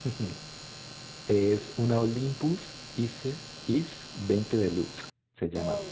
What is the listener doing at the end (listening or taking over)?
taking over